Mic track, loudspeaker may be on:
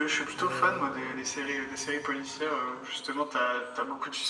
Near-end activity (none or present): present